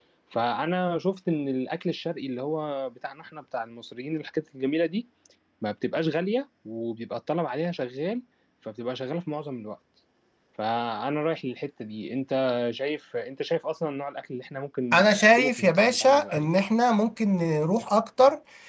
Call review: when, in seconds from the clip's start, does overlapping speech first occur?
14.9 s

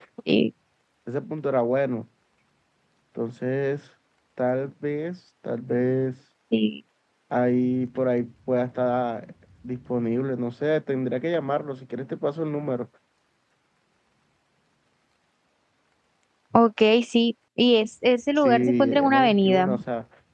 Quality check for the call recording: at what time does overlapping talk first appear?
18.4 s

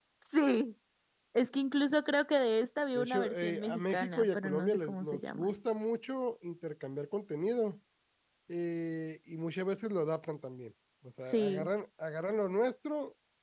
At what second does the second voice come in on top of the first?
3.0 s

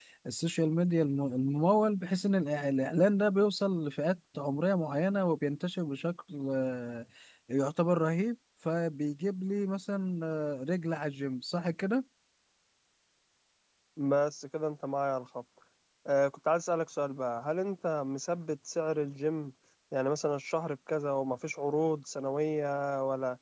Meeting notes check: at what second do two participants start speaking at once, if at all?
none

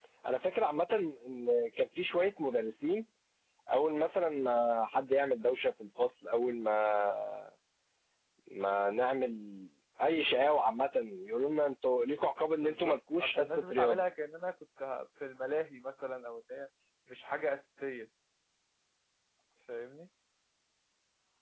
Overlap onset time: 12.5 s

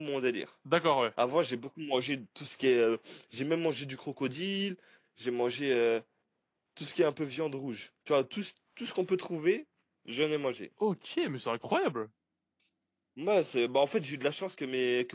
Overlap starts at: none

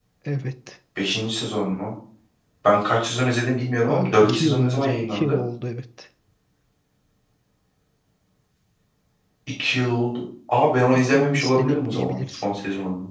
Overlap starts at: 3.9 s

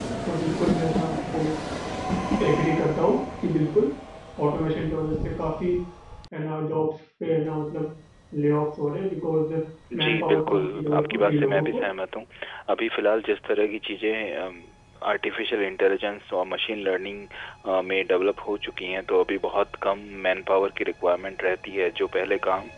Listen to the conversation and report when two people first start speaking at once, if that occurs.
10.0 s

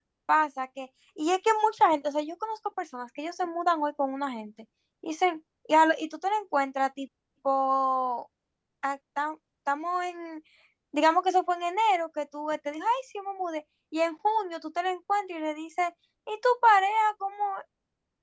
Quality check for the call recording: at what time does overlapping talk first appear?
none

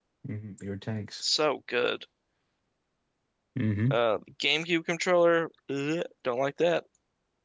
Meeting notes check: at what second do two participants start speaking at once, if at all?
none

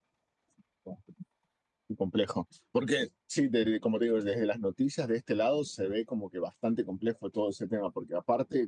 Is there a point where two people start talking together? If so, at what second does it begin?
none

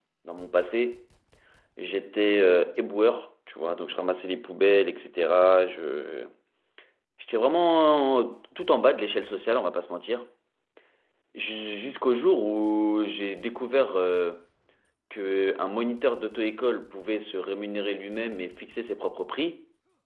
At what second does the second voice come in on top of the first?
none

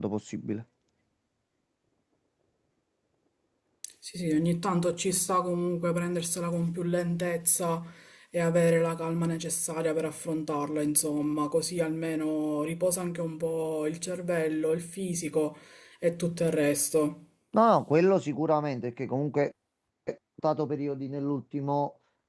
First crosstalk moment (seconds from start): none

